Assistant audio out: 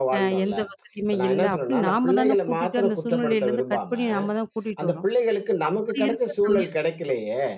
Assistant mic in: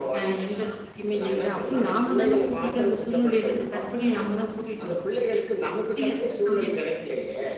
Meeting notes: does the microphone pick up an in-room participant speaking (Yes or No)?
No